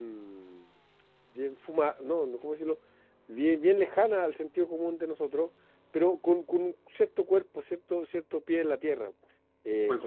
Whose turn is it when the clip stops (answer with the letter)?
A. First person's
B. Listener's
B